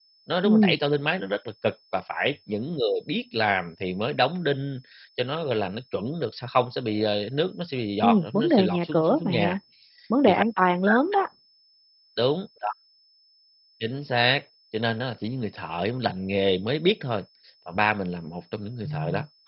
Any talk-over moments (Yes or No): Yes